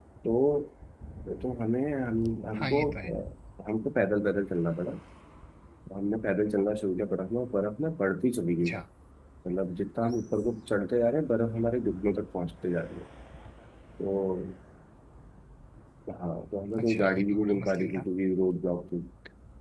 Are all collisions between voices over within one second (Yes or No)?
No